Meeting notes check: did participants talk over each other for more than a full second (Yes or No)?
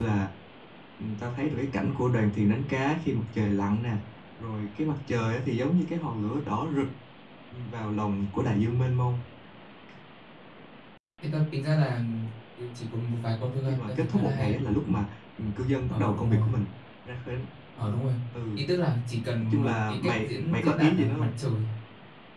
Yes